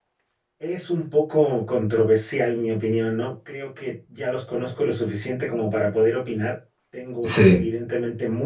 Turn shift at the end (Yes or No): No